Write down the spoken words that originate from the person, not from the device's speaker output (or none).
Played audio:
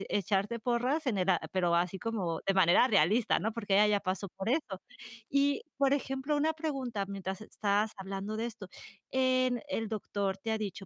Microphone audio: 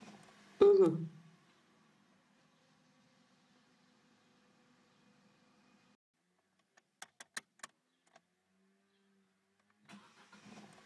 Ujú.